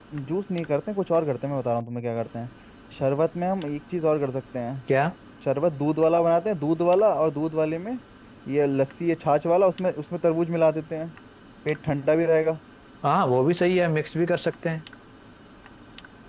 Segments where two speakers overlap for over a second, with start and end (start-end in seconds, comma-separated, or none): none